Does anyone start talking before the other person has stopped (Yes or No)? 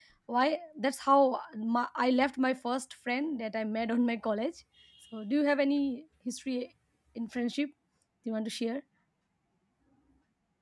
No